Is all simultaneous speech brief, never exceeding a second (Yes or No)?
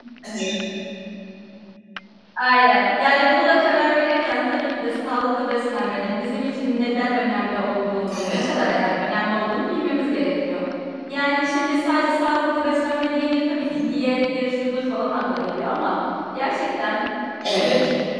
Yes